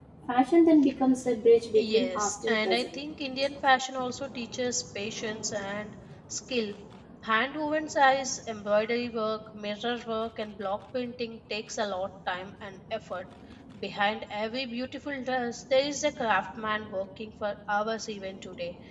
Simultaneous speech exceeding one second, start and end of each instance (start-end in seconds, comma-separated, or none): 1.8-3.0